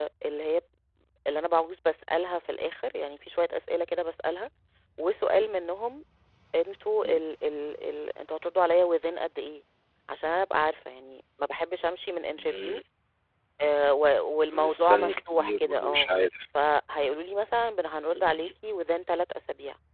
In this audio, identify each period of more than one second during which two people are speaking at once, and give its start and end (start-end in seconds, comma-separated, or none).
14.5-16.1